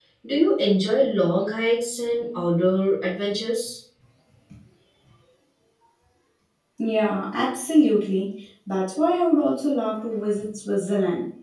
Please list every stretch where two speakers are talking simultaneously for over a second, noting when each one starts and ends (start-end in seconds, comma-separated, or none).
none